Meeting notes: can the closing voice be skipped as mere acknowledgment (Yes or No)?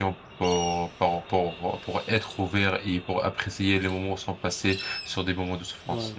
No